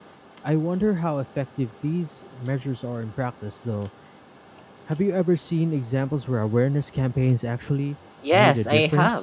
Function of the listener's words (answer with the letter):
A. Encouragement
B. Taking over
B